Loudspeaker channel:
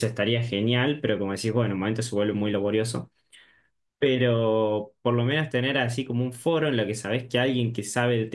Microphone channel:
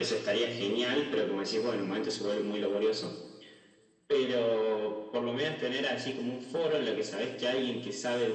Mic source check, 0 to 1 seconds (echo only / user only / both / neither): echo only